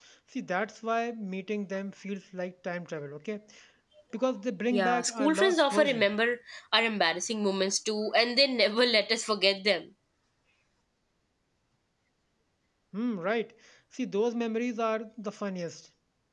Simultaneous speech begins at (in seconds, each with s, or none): 4.7 s